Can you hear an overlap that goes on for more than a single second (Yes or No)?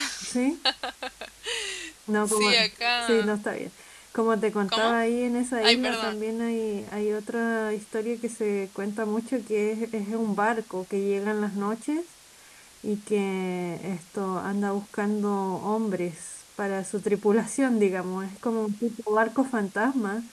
No